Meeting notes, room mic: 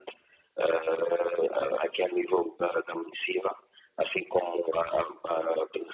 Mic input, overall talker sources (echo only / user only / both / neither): echo only